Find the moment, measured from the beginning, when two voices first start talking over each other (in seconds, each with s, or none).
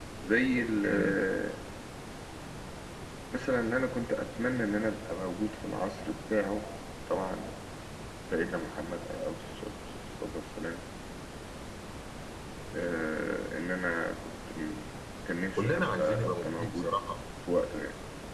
15.5 s